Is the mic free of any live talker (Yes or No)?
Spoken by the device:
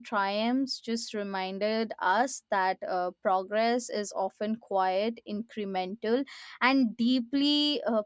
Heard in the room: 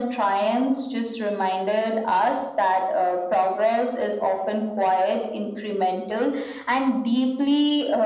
Yes